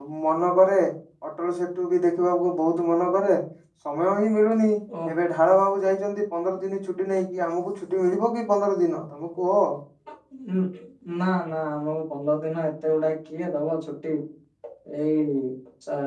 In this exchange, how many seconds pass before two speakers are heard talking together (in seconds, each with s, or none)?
none